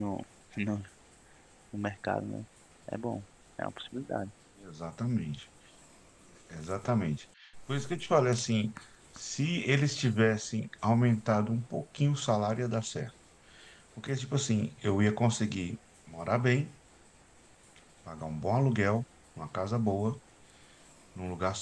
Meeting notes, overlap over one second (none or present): none